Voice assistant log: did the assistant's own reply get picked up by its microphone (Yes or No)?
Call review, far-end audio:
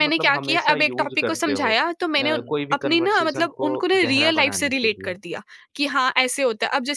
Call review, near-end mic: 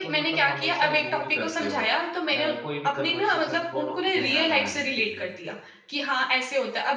Yes